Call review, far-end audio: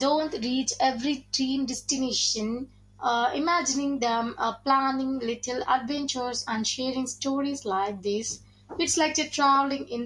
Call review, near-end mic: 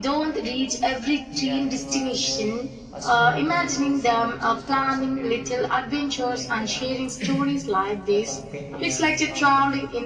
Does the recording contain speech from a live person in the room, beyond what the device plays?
Yes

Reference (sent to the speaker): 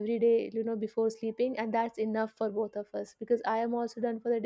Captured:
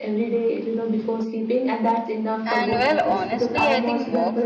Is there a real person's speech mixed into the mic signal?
Yes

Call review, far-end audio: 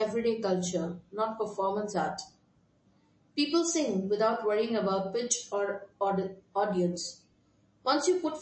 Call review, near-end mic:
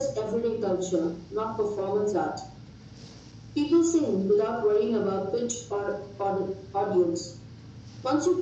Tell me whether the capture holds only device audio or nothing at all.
Yes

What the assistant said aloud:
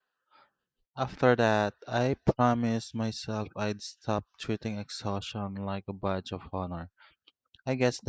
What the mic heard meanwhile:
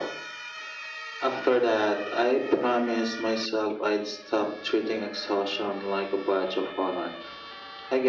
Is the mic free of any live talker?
Yes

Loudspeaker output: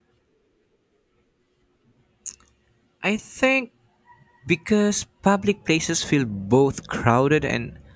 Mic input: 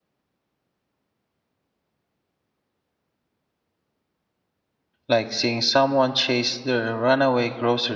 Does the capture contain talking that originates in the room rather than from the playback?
Yes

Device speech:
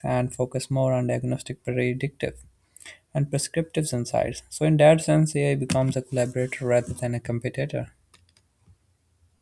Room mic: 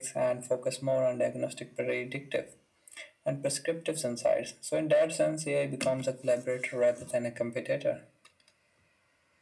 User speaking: No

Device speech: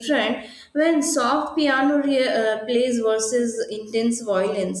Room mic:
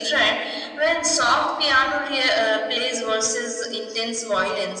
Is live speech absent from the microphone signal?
Yes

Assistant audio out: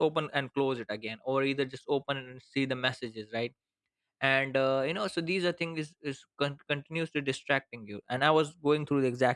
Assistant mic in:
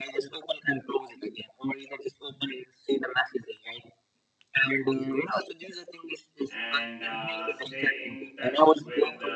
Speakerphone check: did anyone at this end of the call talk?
Yes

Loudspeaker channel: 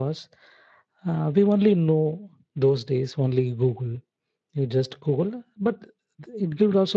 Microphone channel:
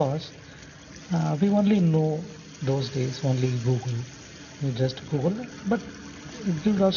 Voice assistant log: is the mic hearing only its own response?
Yes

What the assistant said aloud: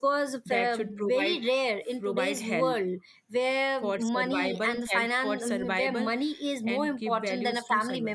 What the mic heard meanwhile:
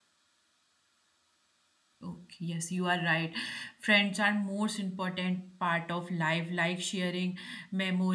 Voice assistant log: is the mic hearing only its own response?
No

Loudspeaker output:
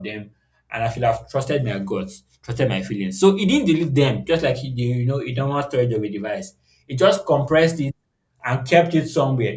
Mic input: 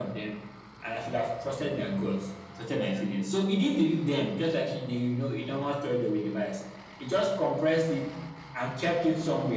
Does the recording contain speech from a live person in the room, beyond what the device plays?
No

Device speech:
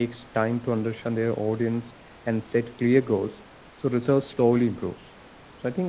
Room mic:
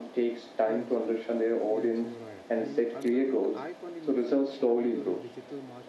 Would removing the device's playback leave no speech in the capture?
No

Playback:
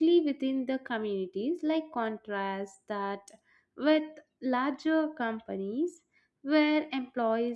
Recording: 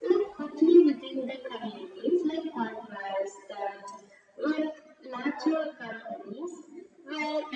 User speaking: No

